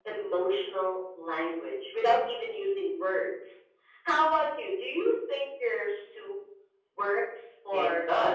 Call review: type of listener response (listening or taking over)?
taking over